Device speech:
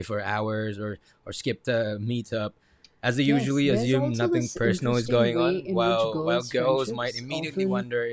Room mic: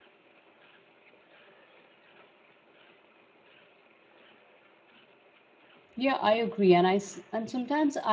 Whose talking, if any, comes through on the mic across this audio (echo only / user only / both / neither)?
user only